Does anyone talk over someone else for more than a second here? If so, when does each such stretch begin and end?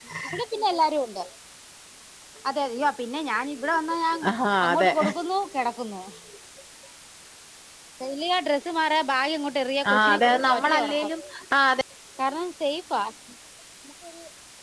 9.9-11.1

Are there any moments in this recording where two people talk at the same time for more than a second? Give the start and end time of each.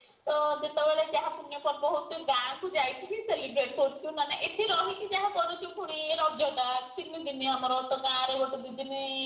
none

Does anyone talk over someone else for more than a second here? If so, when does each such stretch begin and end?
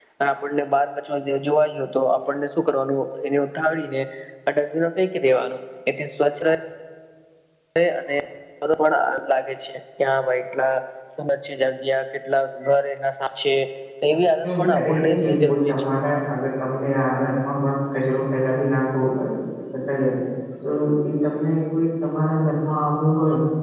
14.4-15.7

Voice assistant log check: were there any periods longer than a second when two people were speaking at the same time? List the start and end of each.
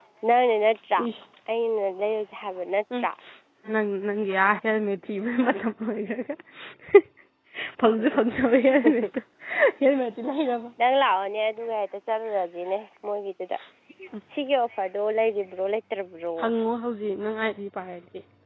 none

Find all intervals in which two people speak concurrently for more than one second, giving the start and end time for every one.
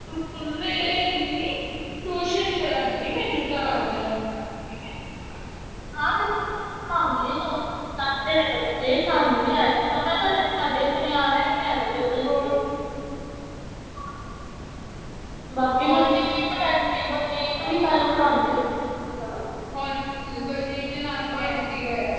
none

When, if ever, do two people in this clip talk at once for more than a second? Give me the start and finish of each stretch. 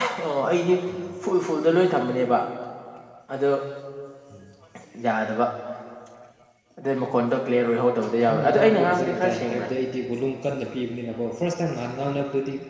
8.3-9.7

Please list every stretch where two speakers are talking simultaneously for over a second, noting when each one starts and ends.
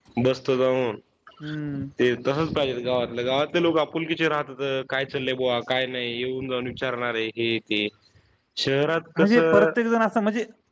none

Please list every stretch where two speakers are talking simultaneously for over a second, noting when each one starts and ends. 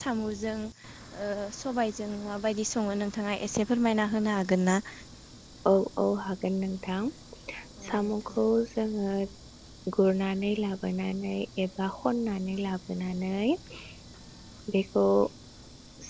none

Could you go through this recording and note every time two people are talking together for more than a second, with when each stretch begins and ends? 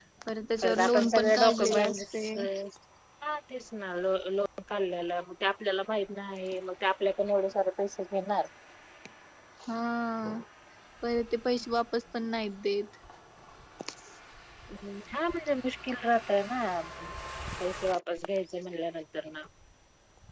0.6-2.3

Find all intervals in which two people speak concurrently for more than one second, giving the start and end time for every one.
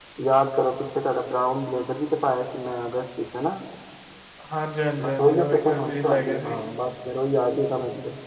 5.2-6.6

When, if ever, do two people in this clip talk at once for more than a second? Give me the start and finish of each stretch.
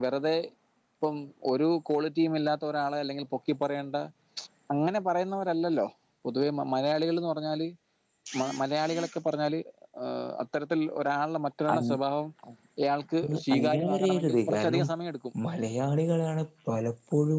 13.2-14.8

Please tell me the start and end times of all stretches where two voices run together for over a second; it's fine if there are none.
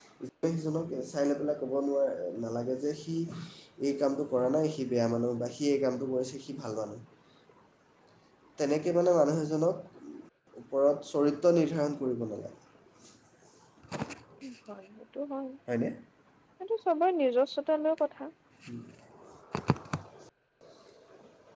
none

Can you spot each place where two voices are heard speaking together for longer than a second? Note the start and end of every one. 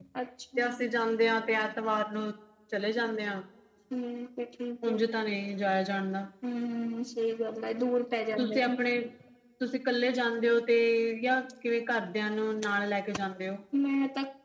none

